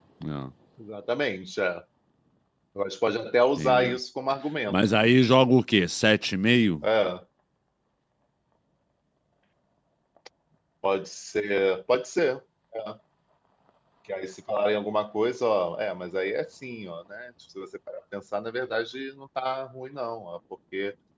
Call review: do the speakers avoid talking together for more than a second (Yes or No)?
Yes